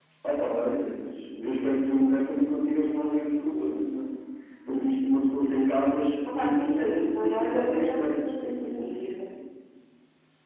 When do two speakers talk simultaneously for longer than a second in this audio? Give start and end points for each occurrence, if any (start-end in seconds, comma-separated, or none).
6.4-8.7